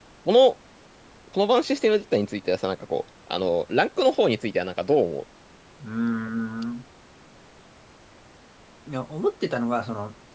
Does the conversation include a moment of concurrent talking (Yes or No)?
No